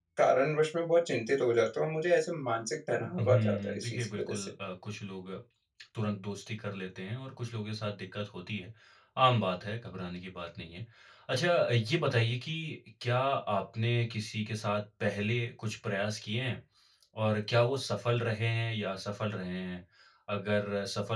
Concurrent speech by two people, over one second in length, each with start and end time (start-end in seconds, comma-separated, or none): 3.2-4.5